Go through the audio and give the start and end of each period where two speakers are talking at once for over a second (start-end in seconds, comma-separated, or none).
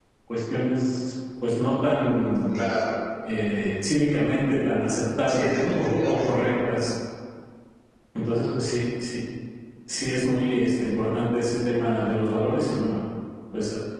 5.3-6.5